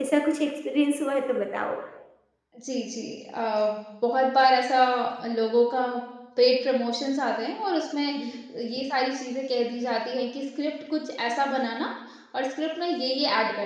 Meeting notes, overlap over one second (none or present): none